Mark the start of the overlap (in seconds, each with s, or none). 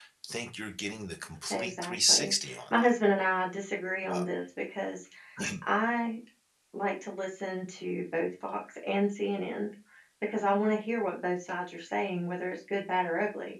1.5 s